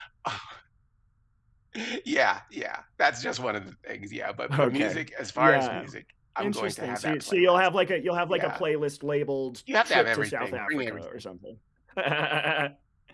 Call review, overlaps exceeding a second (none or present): present